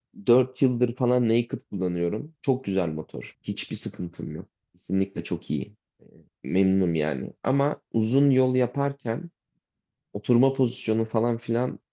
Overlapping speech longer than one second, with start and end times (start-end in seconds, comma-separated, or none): none